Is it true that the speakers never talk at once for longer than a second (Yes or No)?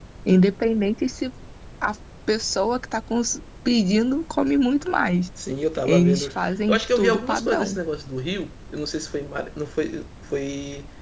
No